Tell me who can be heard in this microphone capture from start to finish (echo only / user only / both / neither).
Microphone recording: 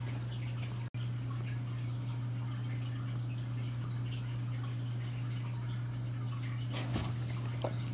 neither